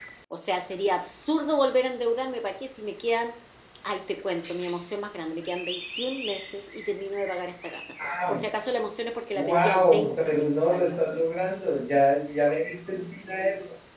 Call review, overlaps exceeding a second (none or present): present